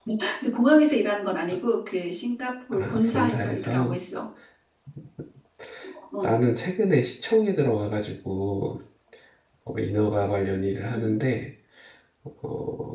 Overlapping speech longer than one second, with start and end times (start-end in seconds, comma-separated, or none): 2.7-4.0